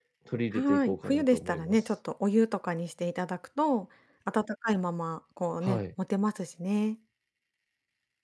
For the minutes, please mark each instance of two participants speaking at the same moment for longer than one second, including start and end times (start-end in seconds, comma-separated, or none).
0.5-1.8